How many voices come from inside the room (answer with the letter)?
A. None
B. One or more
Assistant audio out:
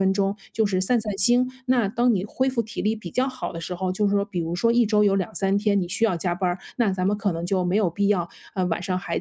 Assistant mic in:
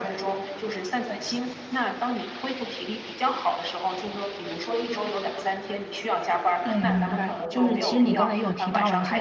B